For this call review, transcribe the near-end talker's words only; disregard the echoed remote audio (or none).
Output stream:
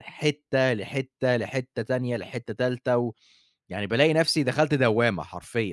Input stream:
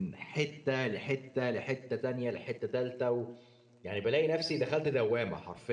none